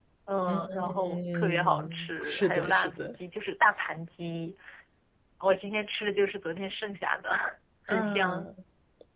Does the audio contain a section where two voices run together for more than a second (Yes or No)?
Yes